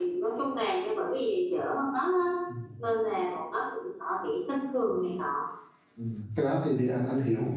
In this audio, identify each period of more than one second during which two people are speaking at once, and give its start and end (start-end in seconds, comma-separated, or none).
none